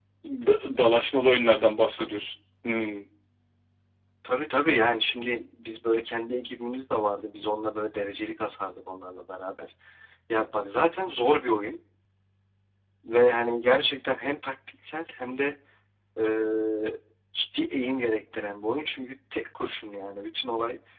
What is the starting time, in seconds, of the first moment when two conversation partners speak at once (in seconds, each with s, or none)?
none